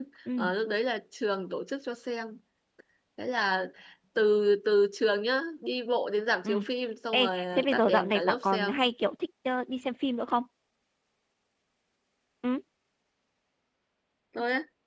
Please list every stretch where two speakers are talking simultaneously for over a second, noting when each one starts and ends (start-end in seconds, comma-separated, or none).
7.1-8.8